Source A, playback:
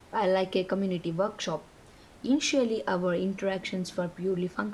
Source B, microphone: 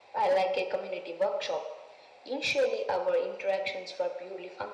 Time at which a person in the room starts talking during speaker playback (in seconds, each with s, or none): none